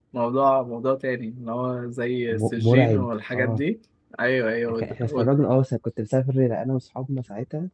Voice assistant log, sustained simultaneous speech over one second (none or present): present